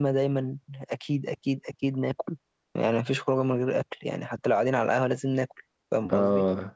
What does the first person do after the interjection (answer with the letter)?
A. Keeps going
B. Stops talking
B